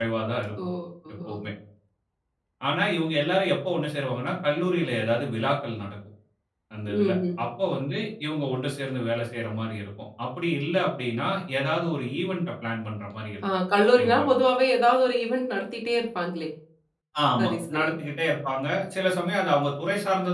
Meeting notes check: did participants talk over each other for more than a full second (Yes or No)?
No